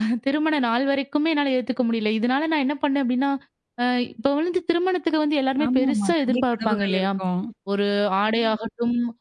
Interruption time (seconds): 5.6 s

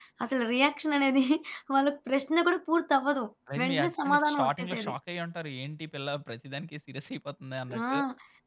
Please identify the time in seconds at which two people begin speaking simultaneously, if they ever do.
3.6 s

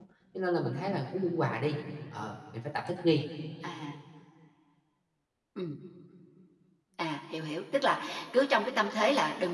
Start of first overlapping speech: none

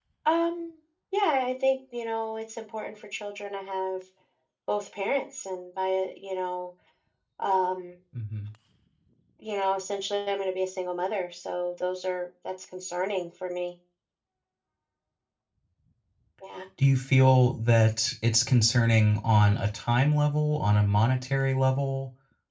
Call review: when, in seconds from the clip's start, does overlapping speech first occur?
none

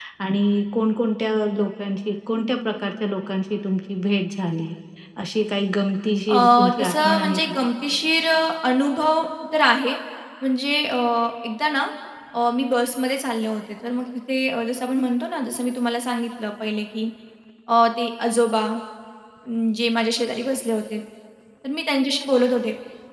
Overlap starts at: 6.3 s

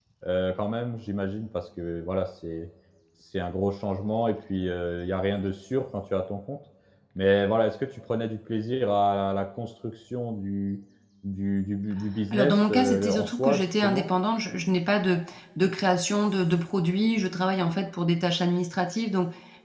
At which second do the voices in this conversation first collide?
12.3 s

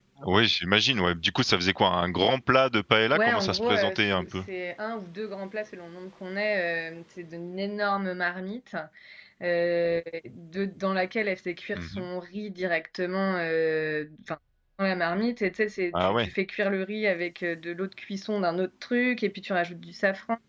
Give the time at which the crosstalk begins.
3.1 s

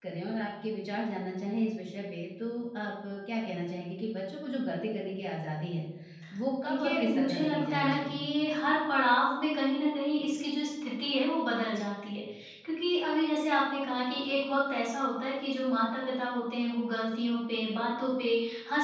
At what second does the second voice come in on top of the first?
6.7 s

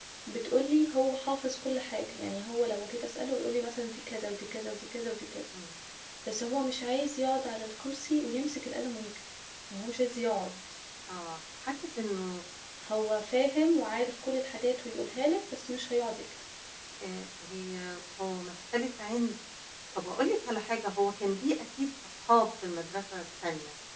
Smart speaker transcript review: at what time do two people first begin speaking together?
none

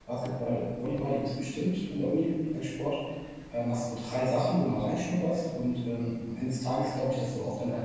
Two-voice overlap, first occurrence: none

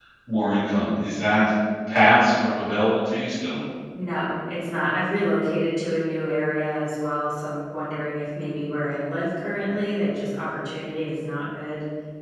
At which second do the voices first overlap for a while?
none

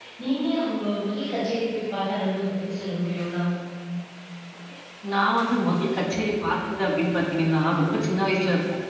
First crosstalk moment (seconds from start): none

